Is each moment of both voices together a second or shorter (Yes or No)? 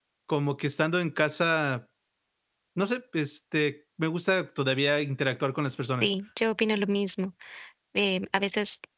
Yes